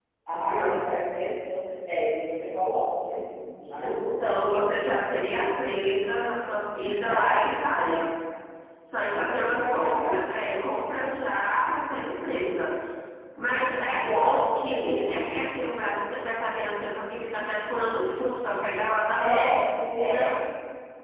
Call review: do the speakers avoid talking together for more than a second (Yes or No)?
No